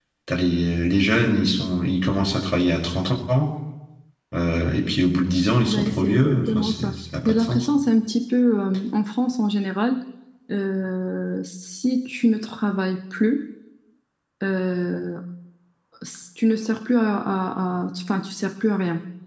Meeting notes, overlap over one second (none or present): present